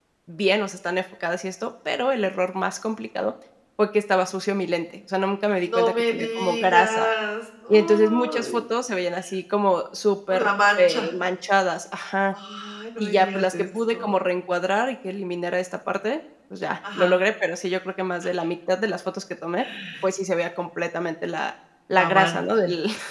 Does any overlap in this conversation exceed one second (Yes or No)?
Yes